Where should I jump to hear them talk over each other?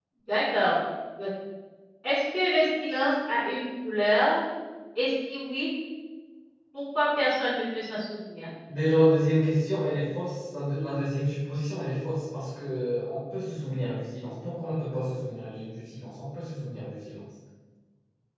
none

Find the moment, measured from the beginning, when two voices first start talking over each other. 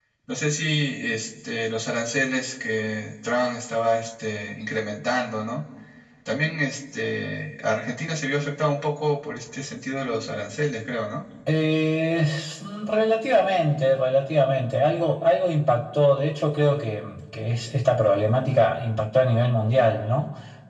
none

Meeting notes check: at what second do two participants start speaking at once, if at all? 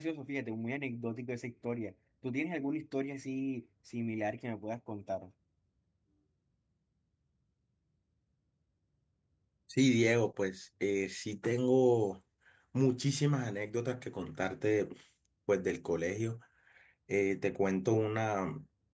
none

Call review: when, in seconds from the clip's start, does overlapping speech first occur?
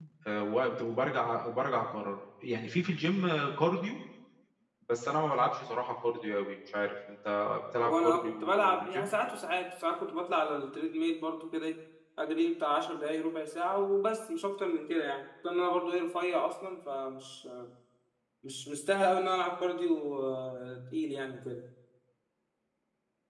7.8 s

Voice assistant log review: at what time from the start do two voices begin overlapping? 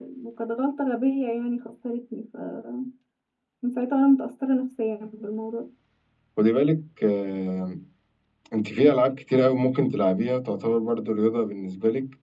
none

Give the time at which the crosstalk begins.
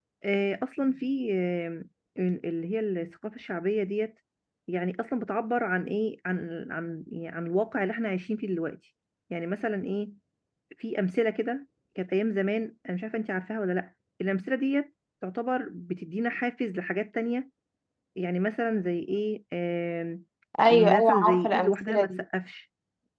20.7 s

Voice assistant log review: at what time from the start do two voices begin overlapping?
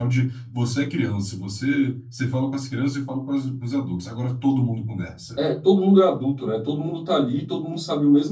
none

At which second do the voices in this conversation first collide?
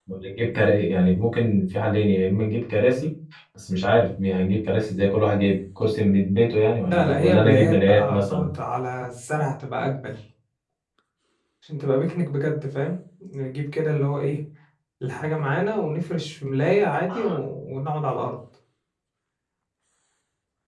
6.8 s

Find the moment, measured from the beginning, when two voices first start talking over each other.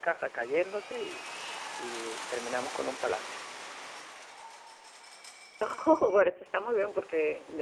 none

